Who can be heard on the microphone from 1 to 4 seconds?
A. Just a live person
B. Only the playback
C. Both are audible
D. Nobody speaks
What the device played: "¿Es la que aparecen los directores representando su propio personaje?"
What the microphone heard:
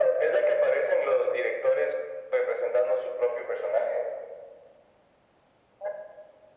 B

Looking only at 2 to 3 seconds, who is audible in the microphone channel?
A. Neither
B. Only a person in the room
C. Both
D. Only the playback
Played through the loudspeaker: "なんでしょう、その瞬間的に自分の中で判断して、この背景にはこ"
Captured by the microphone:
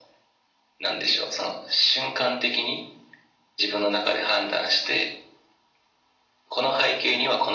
D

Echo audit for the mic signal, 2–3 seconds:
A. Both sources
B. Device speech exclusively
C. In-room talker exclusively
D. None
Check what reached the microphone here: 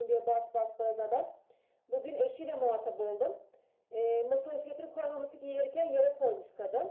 B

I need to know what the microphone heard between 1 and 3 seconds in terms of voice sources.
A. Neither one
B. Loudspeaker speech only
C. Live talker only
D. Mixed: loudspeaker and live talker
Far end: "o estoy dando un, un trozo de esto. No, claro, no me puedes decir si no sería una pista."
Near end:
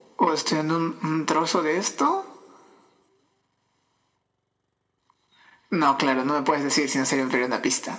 B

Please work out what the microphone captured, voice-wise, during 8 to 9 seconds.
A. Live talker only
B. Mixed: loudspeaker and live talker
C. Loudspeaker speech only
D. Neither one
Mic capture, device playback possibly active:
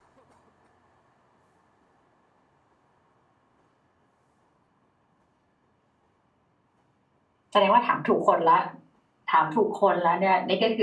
A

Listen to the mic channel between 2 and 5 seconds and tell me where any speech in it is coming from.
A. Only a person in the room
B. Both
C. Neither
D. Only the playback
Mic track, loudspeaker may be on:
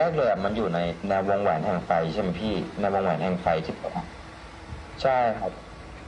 D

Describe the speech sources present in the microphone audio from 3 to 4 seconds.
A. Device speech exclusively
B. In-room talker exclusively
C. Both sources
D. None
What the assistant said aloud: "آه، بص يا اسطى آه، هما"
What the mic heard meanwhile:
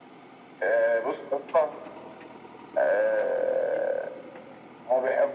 A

